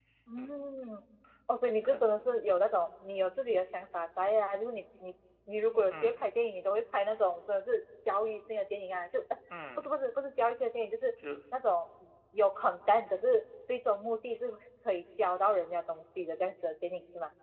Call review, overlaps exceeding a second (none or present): none